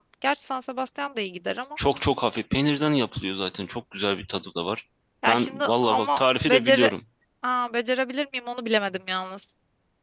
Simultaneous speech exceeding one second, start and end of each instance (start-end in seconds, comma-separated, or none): 5.3-6.9